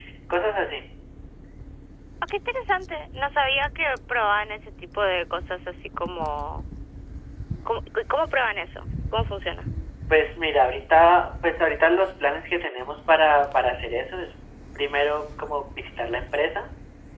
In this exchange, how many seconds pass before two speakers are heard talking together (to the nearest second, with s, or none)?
none